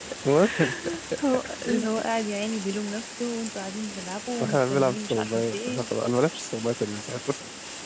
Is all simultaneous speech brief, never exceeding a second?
No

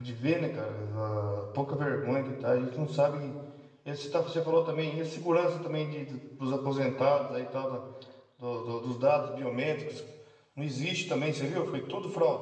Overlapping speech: No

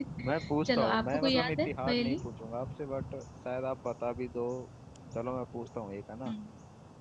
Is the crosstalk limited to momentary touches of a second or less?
No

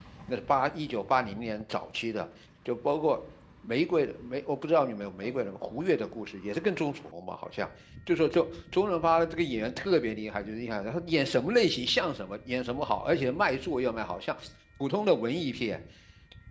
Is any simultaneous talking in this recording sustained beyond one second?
No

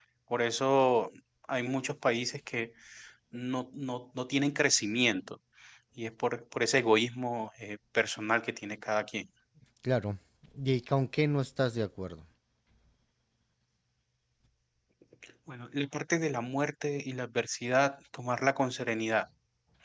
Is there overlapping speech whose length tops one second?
No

